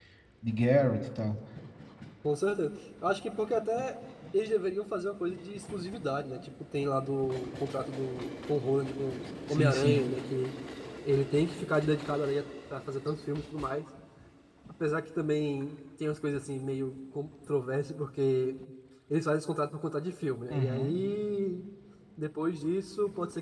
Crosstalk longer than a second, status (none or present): none